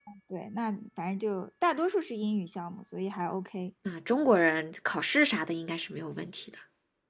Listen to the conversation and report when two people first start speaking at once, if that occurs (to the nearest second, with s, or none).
none